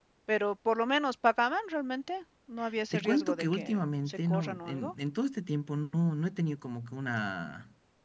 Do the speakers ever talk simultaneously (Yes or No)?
Yes